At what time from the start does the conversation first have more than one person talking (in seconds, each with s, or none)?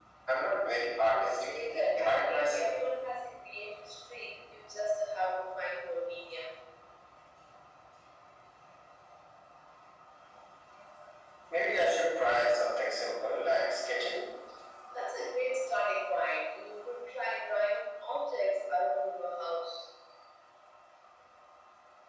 1.1 s